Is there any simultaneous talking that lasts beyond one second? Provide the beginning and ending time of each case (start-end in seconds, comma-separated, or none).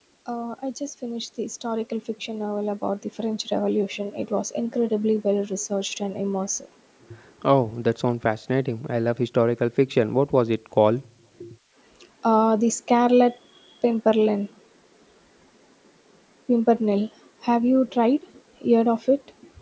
none